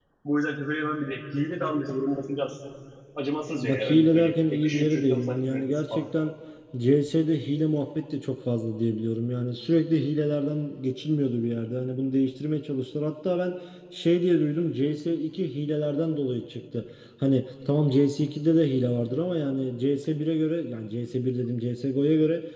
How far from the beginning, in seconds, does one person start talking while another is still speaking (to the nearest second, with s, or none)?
4 s